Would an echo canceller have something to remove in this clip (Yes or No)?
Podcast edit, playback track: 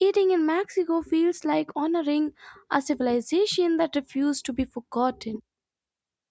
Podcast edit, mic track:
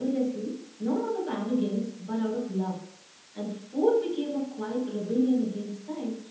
No